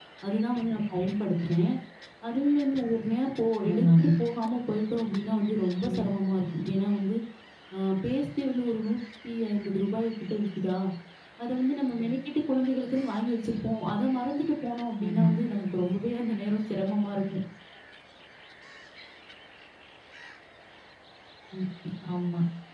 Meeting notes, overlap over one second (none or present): none